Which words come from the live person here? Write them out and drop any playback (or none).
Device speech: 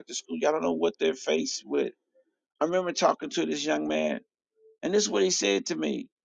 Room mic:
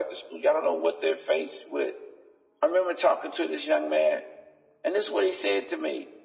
none